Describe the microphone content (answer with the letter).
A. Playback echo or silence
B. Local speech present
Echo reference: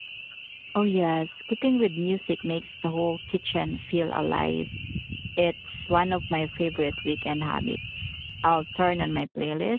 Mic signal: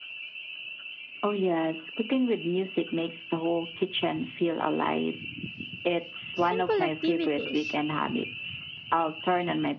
B